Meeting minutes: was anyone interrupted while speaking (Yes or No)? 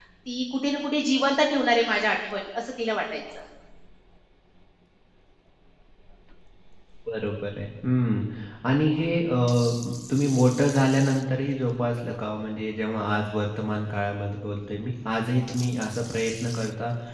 No